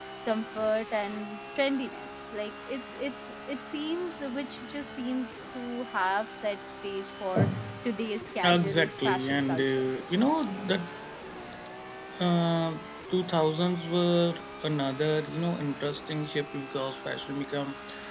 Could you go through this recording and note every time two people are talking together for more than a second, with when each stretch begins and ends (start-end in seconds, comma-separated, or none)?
8.4-9.8